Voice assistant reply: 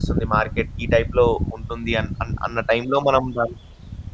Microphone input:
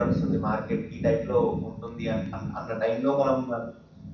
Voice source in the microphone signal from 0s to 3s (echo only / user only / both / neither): echo only